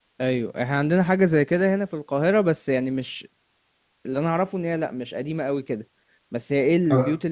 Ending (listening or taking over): listening